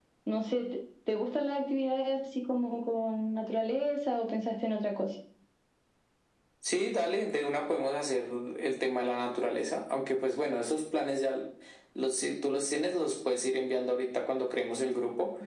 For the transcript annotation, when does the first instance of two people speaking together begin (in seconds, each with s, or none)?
none